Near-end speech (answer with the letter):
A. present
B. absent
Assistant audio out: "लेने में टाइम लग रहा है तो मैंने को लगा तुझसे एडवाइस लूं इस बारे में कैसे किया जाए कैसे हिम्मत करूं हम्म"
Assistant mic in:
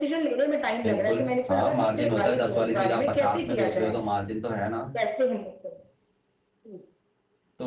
A